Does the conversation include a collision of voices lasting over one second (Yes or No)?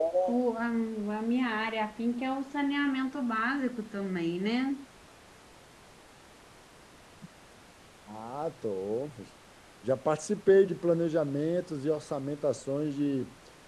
No